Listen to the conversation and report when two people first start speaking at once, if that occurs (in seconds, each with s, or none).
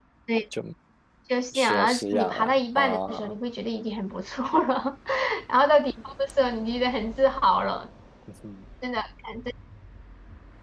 1.5 s